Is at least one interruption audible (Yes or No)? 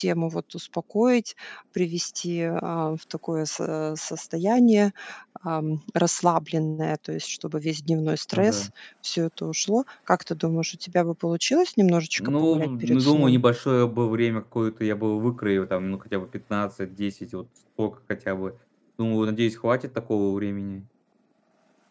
Yes